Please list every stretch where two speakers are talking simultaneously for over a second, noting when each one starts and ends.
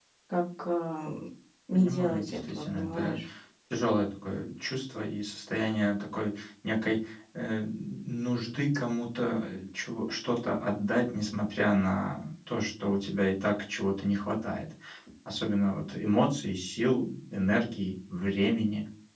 1.7-3.2

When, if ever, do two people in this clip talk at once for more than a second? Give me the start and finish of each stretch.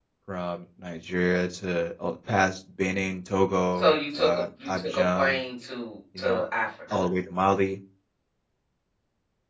3.8-5.4

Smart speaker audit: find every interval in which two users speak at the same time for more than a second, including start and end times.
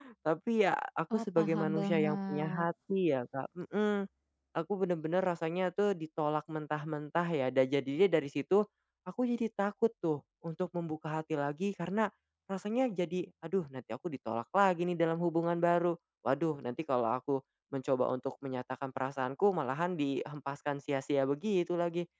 1.1-2.7

